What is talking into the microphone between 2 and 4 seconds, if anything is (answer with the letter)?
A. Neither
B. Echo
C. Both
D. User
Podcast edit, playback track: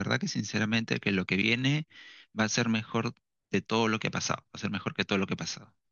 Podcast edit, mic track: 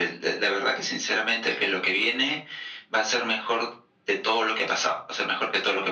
B